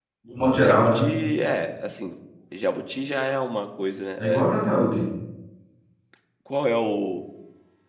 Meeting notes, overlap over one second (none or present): none